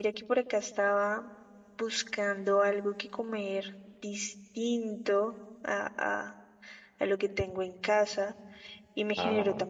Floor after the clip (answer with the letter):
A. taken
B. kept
B